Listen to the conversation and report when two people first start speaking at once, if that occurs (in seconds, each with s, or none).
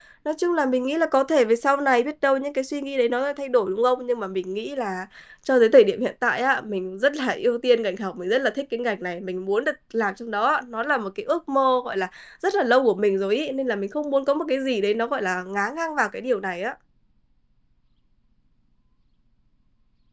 none